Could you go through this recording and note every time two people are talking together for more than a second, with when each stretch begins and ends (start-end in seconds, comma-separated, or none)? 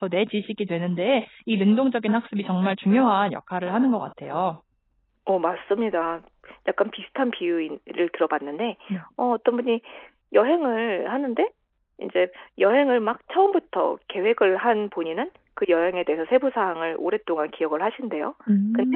none